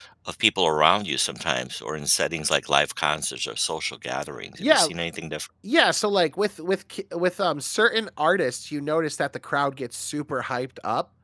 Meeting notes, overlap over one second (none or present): none